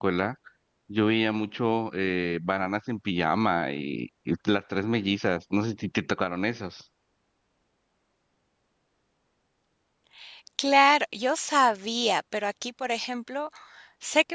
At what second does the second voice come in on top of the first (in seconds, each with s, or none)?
none